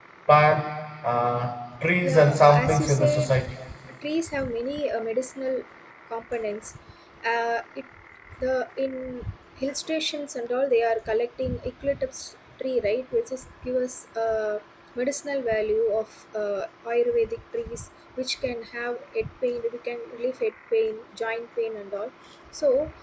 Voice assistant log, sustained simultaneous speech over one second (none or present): present